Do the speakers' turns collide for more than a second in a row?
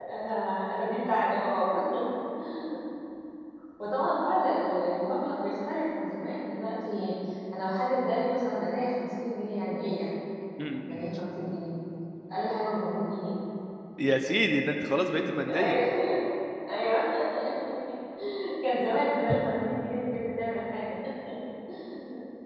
No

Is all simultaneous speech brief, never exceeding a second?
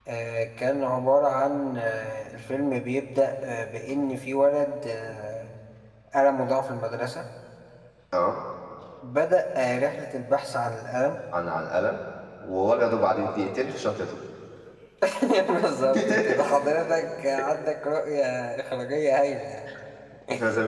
Yes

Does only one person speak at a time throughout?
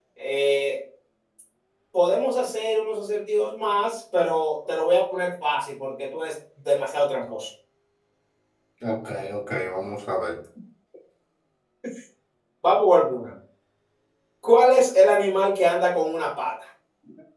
Yes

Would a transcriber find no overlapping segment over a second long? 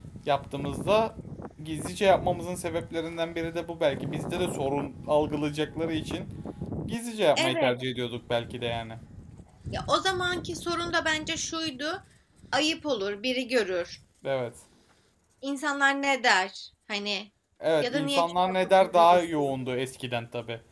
No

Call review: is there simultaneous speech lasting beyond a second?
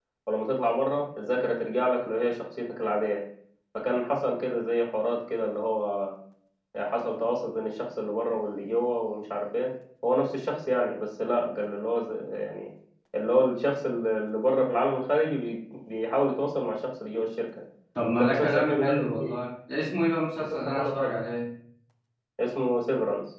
Yes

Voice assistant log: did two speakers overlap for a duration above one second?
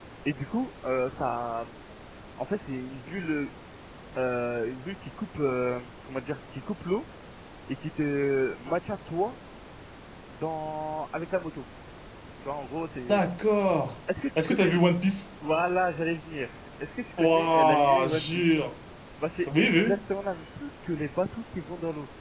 Yes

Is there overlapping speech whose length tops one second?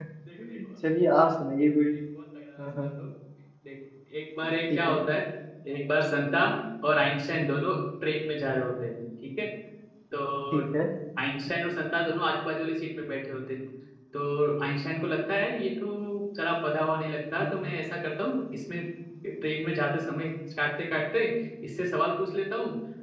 No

